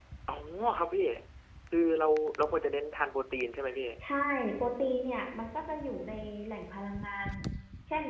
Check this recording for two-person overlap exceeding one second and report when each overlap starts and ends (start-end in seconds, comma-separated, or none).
none